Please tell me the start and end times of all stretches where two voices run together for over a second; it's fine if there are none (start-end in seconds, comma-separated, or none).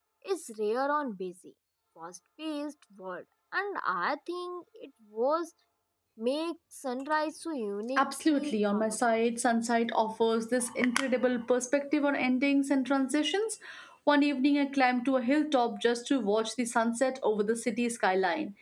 8.0-9.2